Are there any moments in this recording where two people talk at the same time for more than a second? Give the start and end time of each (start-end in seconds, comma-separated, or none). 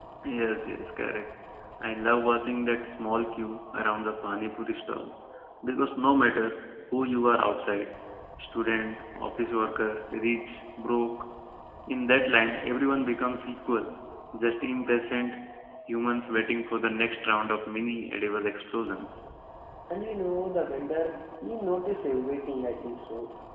none